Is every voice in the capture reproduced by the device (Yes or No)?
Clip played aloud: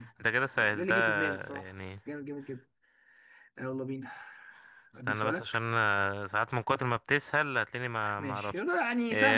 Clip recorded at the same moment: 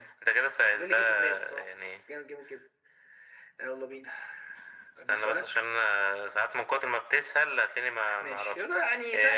Yes